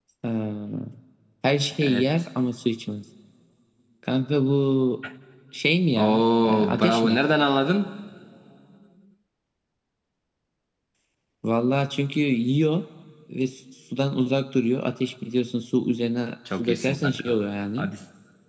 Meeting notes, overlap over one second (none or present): present